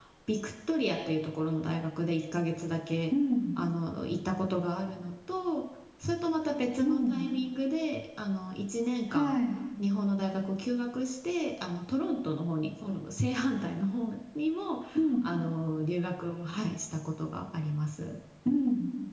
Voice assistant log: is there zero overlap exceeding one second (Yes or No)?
Yes